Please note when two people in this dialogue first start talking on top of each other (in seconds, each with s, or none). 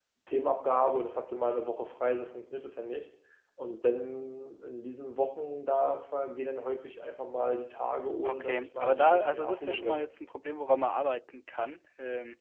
8.2 s